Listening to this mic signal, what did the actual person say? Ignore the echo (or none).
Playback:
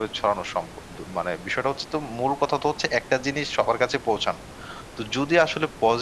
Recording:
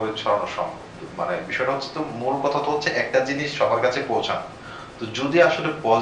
none